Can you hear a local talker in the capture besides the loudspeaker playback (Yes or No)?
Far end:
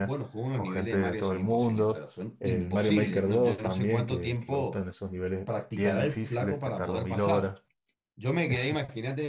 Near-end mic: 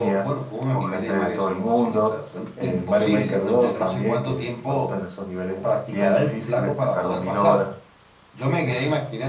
No